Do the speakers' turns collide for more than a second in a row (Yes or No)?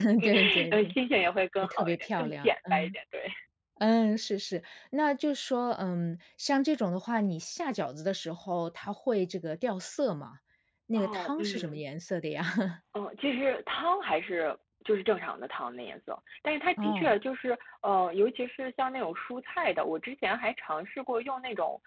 Yes